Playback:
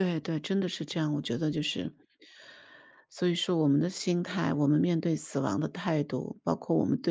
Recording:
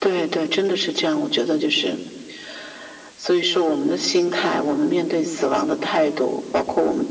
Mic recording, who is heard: echo only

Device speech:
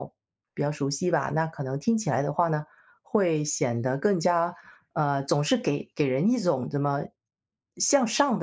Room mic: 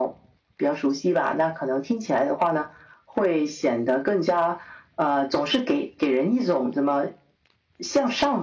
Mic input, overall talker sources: echo only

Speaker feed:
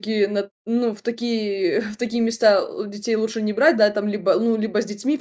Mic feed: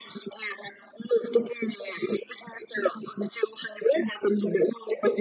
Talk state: echo only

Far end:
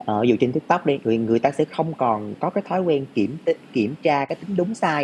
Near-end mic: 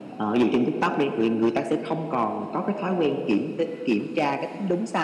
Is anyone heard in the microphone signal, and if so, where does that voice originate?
echo only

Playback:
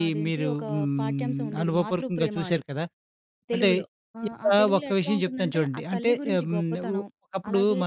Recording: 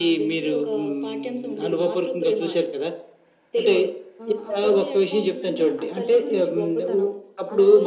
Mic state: echo only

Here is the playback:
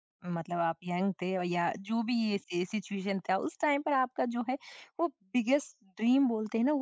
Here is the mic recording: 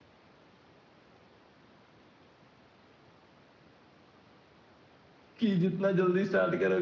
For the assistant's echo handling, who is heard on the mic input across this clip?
user only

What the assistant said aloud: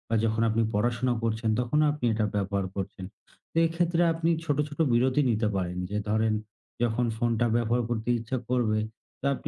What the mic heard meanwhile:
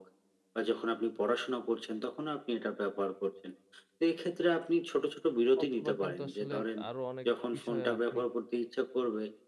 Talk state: both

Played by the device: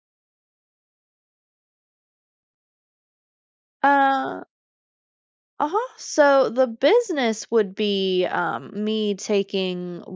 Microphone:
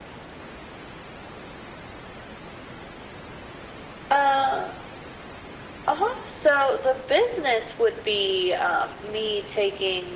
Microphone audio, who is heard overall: echo only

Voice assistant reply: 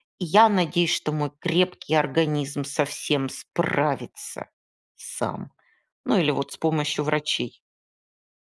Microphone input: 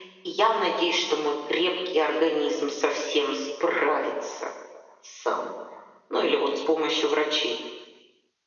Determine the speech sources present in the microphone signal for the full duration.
echo only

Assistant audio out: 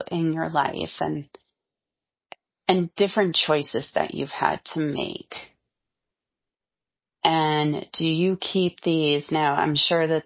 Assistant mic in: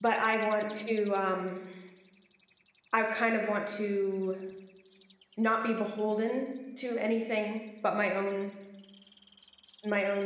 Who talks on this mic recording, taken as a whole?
user only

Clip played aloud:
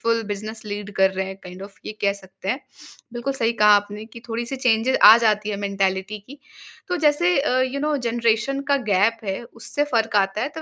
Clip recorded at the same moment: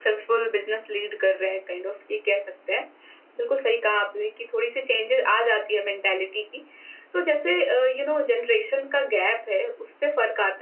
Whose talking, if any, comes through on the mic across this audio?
echo only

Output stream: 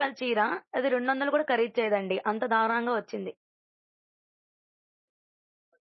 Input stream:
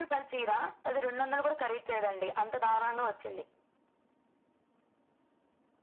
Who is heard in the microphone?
echo only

